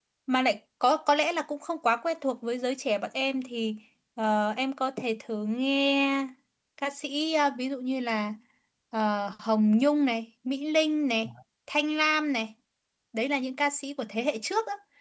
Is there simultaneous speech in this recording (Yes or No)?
No